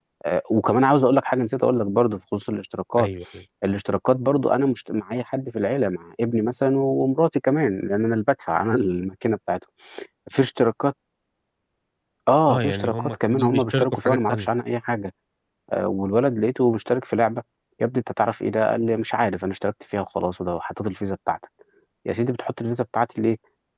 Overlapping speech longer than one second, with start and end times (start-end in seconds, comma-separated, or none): 12.5-14.5